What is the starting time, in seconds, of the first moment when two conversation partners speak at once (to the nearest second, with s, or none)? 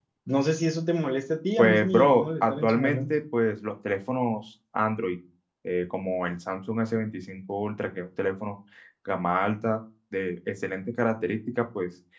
2 s